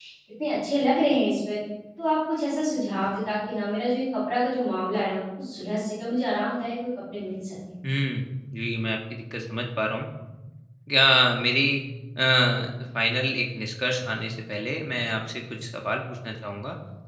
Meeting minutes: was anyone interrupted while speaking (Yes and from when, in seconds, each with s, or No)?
No